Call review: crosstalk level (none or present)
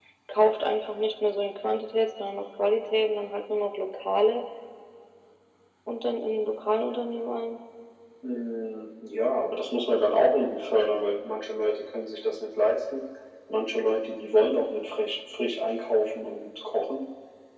none